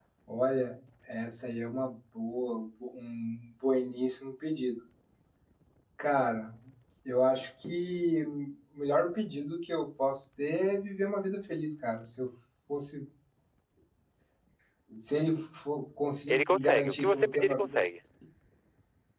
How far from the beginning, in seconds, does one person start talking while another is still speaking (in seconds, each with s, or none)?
16.3 s